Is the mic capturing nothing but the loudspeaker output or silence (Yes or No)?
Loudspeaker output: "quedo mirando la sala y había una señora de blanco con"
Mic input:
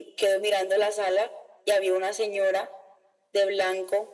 Yes